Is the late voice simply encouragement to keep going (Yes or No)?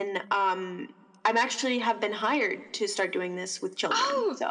No